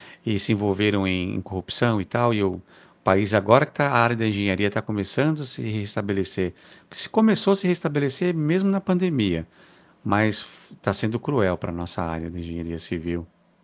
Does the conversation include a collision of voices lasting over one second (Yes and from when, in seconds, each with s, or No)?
No